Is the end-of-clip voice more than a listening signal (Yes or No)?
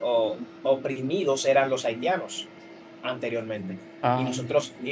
No